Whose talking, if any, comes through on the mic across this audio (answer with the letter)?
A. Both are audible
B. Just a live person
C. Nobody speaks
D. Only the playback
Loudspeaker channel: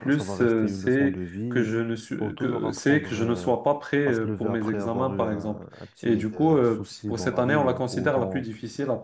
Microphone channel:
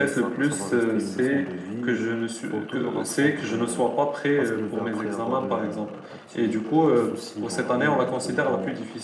D